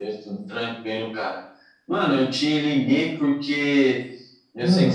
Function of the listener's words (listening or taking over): listening